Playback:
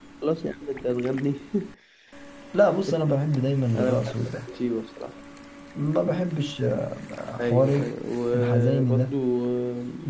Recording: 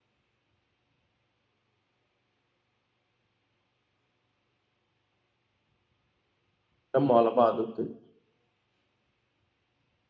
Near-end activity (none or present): present